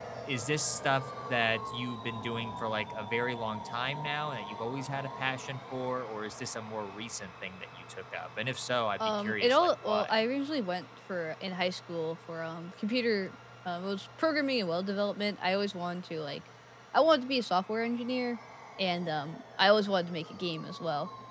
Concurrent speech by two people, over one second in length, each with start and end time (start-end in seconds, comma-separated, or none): 9.0-10.2